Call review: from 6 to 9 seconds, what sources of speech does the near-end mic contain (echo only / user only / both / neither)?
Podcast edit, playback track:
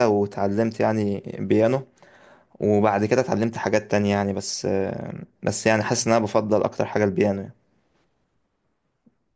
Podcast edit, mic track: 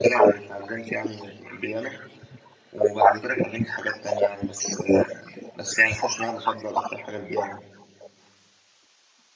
echo only